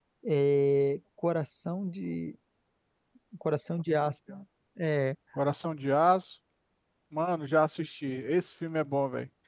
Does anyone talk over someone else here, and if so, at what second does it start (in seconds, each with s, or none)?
none